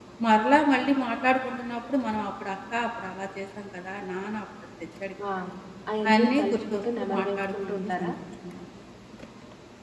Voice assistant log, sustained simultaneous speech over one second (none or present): present